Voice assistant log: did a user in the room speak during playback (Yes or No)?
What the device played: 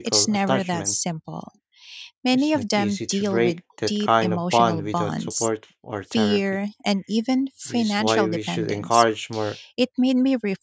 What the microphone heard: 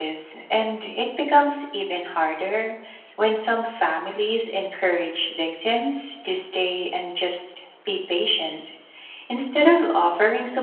Yes